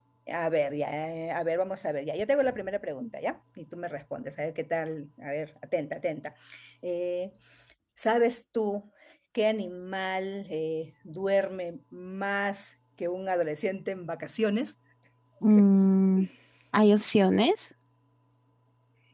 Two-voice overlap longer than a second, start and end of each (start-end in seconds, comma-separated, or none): none